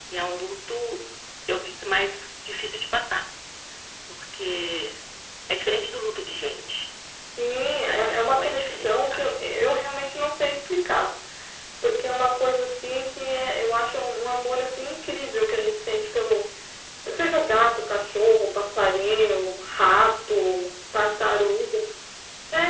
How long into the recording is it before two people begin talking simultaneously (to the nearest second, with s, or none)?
8 s